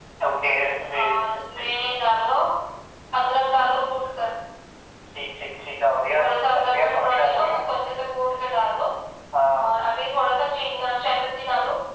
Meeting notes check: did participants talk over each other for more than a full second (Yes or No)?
Yes